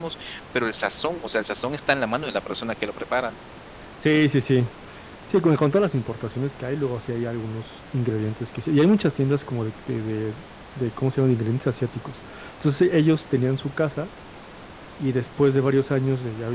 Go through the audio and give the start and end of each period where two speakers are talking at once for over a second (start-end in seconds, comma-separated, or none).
none